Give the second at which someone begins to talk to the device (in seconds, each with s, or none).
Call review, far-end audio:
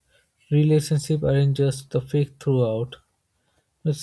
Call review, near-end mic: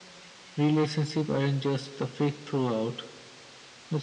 none